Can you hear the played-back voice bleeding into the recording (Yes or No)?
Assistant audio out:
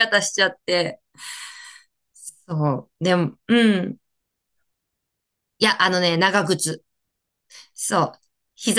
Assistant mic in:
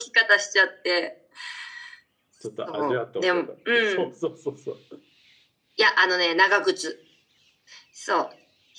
Yes